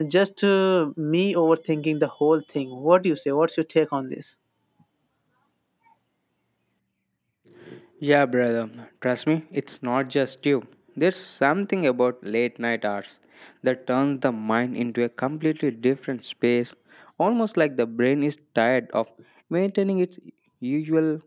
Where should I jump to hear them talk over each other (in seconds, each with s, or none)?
none